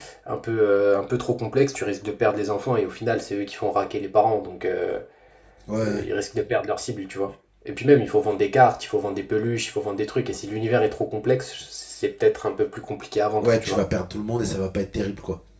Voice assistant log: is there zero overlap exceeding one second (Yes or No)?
Yes